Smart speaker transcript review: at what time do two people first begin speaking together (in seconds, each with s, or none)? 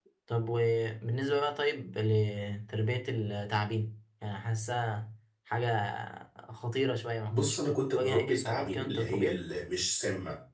7.3 s